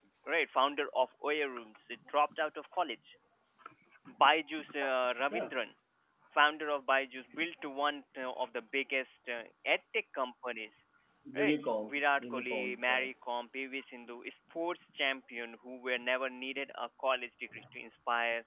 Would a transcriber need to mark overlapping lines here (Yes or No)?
Yes